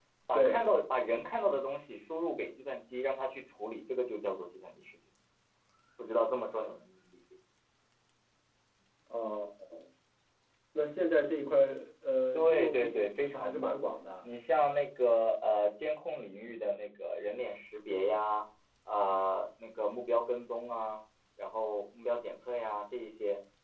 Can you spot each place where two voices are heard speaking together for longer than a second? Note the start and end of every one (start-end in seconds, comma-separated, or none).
12.3-13.8